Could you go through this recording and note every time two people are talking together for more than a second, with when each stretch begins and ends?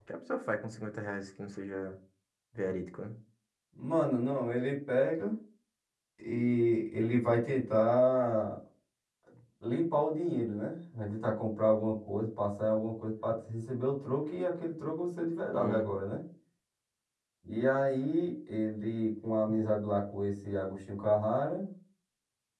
none

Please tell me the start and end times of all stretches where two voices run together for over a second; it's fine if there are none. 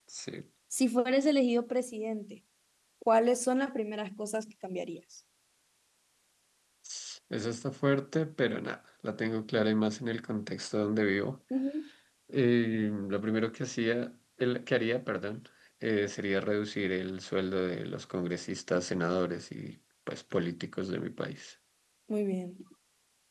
none

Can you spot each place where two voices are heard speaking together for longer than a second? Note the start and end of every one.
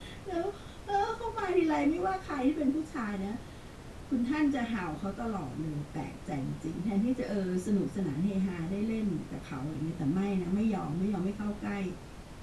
none

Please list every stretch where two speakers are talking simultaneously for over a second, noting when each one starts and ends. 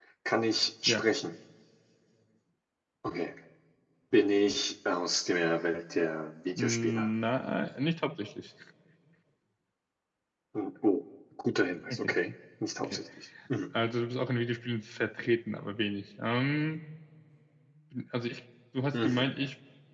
none

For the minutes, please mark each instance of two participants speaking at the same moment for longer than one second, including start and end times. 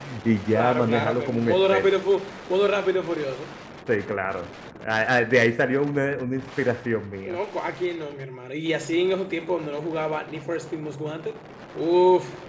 0.5-1.9

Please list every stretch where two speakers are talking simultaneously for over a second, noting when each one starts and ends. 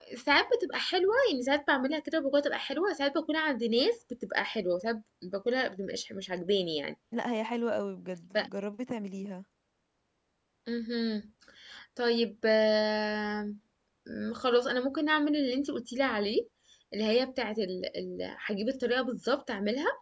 none

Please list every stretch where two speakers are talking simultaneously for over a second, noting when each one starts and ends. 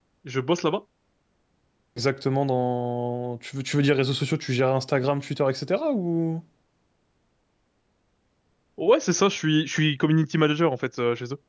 none

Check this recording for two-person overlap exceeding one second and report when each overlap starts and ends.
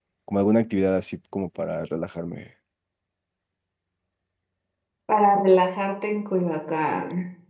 none

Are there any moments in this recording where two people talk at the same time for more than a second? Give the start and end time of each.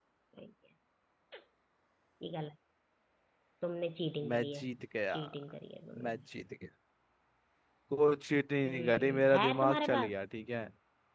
8.6-10.1

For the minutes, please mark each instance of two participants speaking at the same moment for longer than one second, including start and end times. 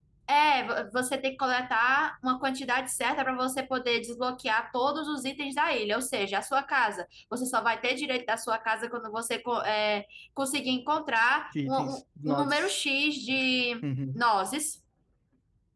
none

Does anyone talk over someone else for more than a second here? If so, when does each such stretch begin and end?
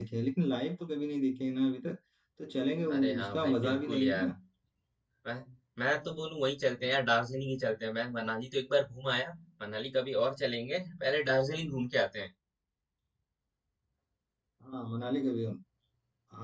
2.9-4.3

